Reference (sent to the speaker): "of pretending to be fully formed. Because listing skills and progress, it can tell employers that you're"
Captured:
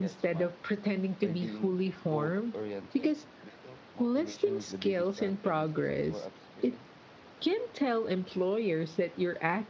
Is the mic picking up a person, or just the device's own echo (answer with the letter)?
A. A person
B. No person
A